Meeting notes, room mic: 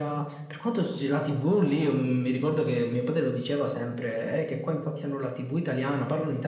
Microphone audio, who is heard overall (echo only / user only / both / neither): echo only